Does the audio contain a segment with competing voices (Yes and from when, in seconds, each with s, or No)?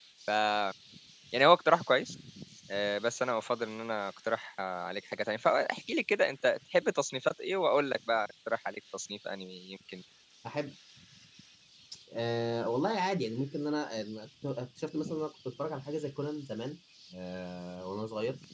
No